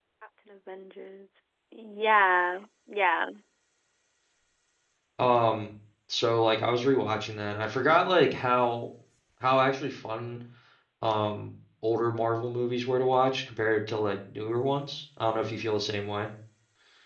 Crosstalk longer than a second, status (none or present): none